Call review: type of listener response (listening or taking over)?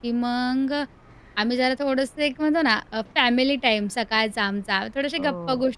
listening